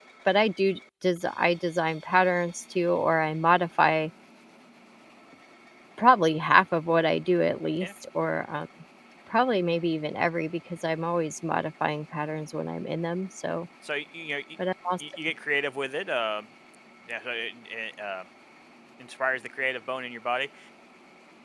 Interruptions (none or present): none